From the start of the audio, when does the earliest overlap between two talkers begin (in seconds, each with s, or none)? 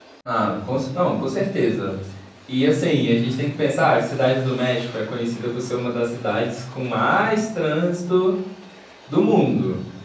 none